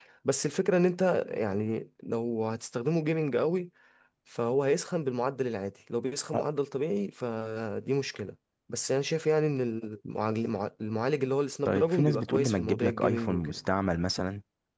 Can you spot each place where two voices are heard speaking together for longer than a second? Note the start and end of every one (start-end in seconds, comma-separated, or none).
11.6-13.6